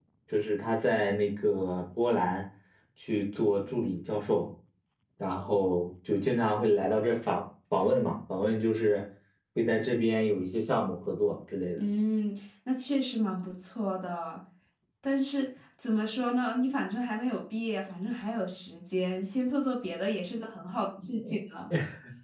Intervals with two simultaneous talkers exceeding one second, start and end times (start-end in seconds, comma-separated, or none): none